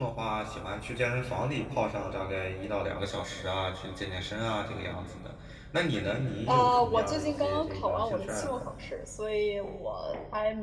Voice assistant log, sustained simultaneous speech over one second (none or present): present